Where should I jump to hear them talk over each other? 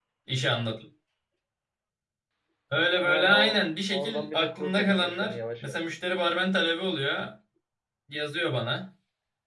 3.0 s

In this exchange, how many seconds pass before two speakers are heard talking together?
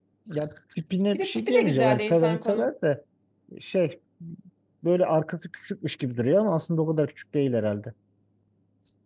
1.1 s

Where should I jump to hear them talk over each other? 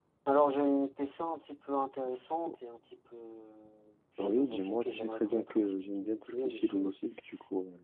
4.2 s

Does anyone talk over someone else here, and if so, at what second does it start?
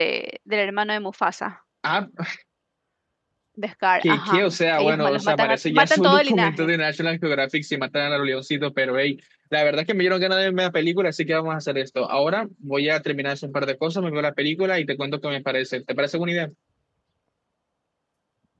4.0 s

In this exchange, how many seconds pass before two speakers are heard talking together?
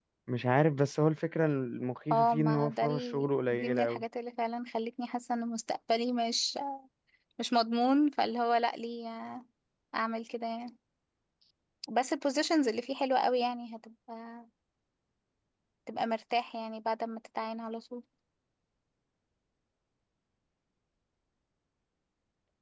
2.1 s

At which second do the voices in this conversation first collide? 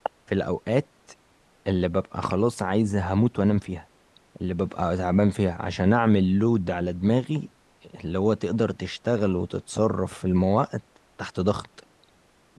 none

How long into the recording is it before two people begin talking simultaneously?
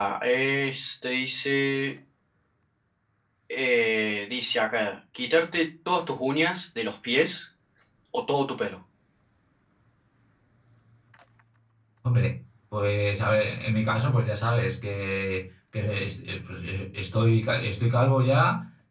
none

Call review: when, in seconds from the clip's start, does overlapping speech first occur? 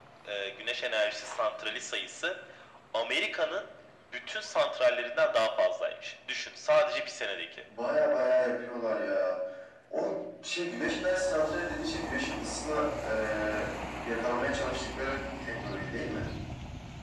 none

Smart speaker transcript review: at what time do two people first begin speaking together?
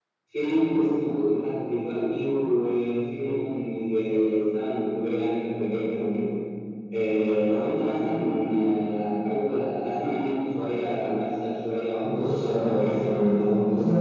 12.0 s

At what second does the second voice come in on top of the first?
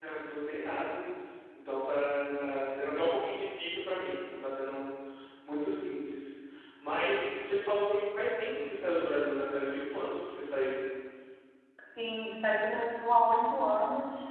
none

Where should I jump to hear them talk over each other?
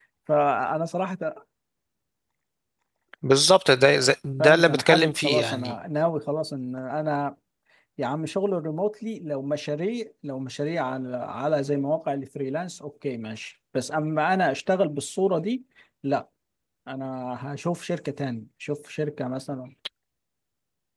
4.4 s

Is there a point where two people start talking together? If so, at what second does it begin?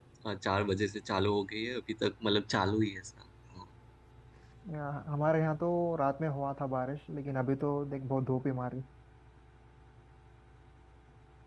none

